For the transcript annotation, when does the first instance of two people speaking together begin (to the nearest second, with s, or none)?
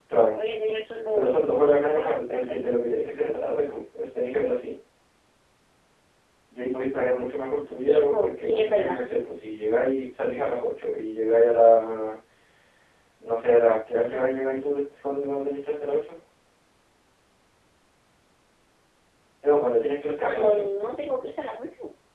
1 s